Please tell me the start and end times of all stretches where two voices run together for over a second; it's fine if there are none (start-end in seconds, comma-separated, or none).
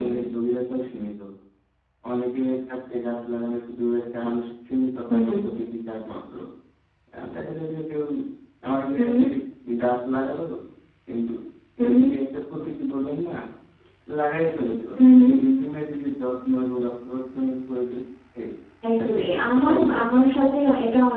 19.0-20.2